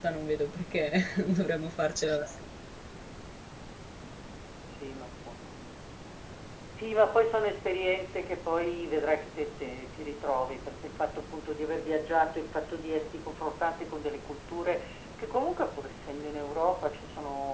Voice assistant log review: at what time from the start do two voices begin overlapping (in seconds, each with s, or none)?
none